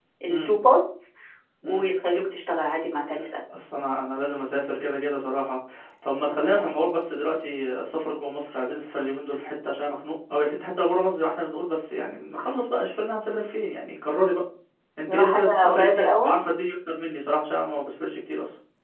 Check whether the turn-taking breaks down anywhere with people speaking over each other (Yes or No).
Yes